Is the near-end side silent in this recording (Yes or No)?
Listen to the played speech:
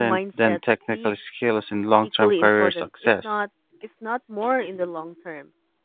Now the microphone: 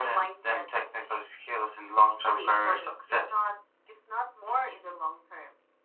Yes